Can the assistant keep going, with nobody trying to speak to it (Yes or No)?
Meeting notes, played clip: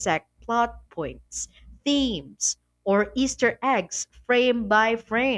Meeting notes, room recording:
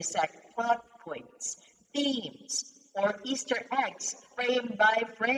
Yes